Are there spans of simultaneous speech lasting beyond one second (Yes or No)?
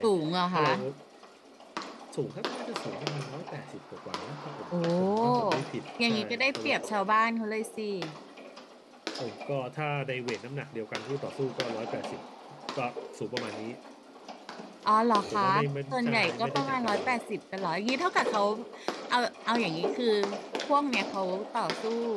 Yes